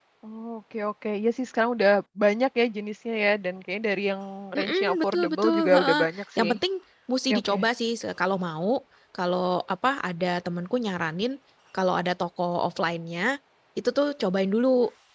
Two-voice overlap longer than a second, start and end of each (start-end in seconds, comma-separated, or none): 4.6-6.0